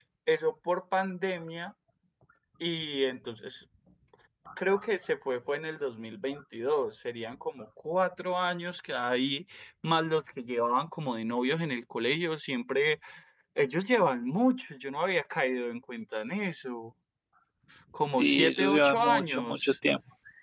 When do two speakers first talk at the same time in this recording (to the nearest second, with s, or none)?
18 s